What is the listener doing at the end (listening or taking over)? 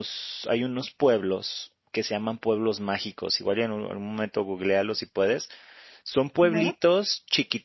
listening